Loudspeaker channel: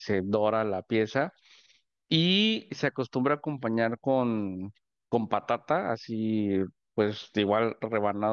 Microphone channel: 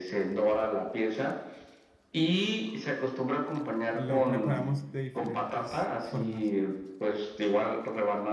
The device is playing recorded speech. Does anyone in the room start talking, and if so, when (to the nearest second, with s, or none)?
4 s